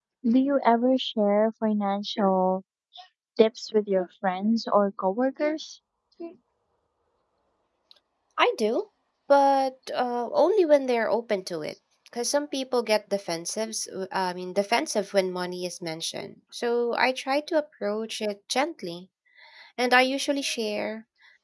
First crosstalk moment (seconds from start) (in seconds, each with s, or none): none